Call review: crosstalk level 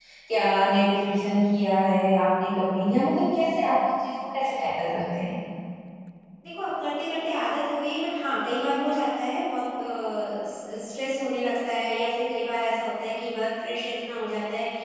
none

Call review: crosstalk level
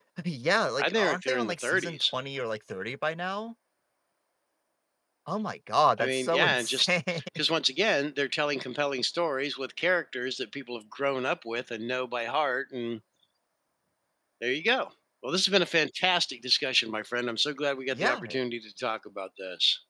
present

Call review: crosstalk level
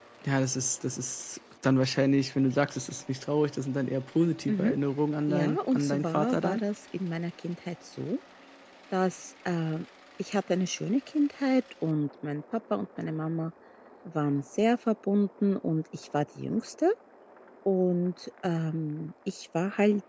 present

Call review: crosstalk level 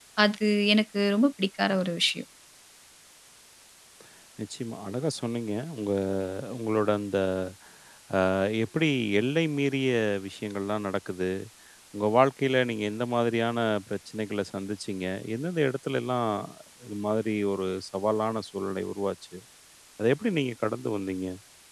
none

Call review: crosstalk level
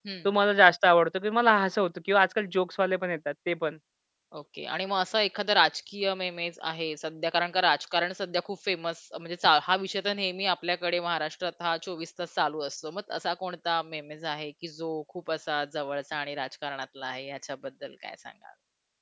none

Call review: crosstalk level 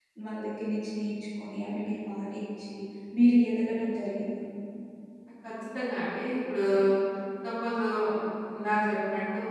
none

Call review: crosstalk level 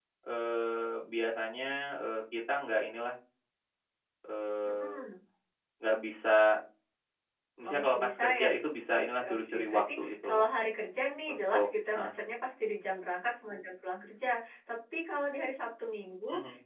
present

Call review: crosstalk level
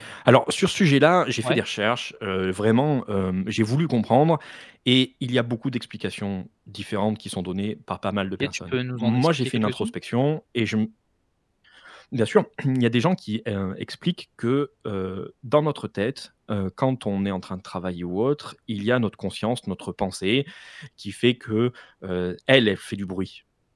present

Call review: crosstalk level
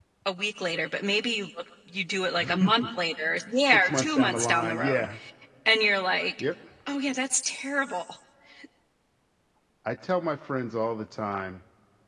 present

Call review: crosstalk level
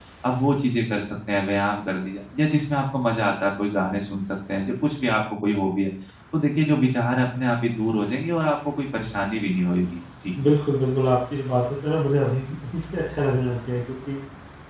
none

